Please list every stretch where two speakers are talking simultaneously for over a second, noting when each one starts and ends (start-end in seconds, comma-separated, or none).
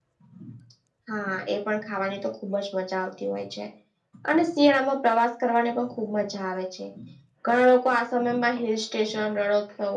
none